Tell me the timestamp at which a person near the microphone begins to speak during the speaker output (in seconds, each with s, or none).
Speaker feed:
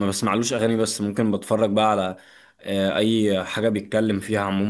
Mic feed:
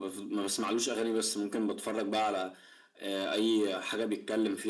none